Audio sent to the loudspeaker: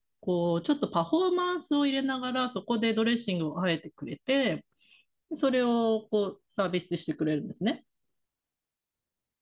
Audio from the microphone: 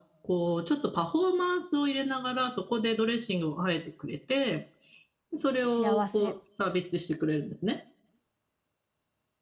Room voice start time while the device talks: 5.6 s

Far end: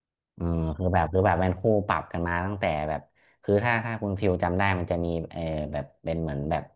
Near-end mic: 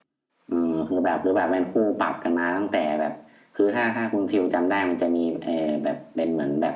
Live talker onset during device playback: none

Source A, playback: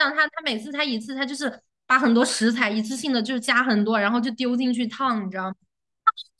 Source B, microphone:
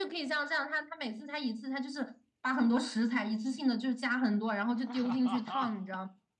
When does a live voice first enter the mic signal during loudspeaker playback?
4.7 s

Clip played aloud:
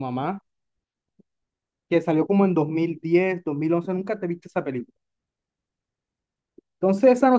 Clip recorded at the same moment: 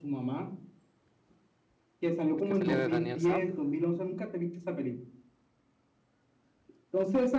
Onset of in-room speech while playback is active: 2.4 s

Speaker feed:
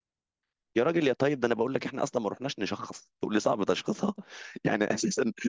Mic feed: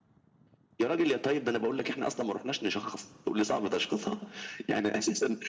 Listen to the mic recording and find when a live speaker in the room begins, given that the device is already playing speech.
none

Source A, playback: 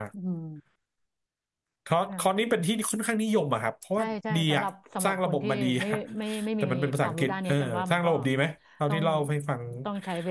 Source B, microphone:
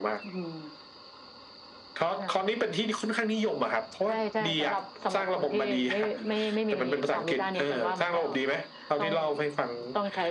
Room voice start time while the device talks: none

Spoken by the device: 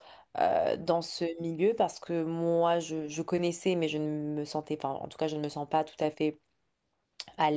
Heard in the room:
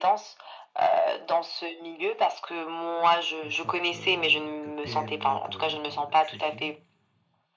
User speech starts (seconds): 3.4 s

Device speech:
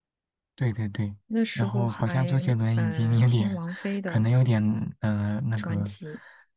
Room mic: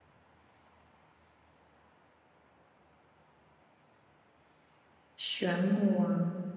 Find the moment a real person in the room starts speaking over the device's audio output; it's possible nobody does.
5.2 s

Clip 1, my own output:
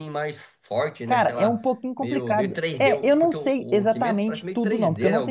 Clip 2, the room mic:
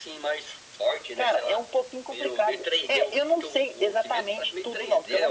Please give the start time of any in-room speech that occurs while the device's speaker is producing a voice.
none

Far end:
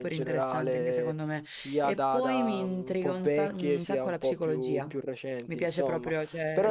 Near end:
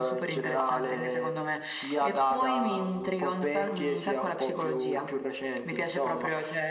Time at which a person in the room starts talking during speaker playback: none

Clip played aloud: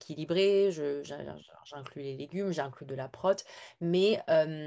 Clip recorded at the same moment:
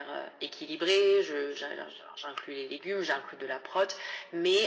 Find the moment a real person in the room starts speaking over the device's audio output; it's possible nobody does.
none

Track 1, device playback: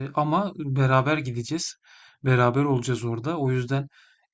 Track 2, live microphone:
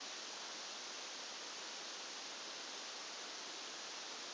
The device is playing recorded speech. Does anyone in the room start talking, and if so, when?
none

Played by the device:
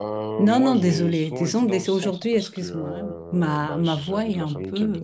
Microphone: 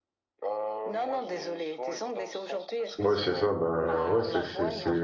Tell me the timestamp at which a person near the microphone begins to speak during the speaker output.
3.0 s

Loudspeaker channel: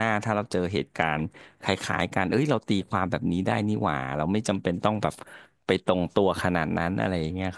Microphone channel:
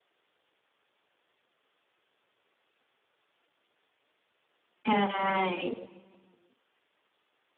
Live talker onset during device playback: 4.8 s

